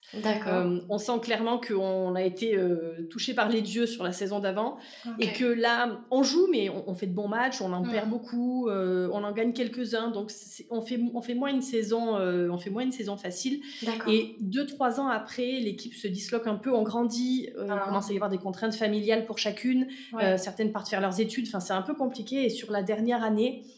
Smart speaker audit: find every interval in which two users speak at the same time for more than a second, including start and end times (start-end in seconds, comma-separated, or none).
none